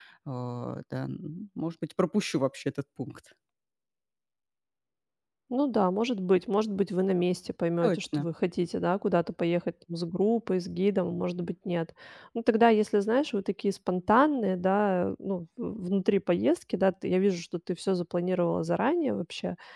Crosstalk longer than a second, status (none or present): none